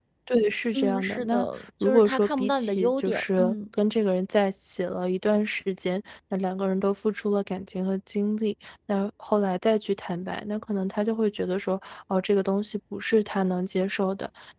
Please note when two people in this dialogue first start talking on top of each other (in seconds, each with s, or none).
0.7 s